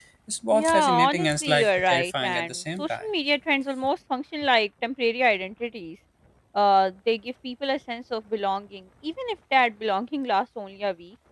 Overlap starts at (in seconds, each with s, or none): 0.5 s